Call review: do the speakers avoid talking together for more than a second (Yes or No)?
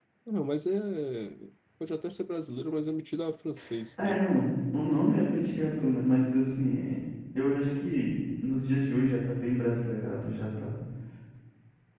Yes